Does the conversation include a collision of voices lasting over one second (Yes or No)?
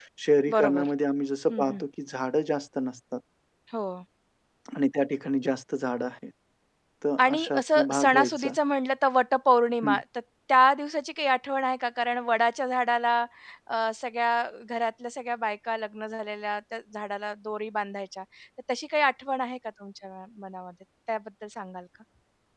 Yes